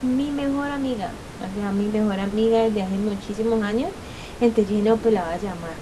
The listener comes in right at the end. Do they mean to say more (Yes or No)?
No